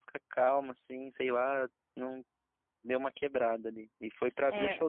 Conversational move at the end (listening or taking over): taking over